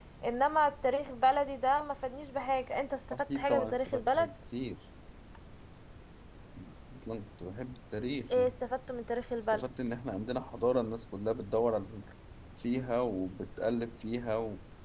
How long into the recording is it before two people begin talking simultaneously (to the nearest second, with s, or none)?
3 s